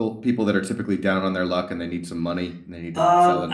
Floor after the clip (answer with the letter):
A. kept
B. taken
B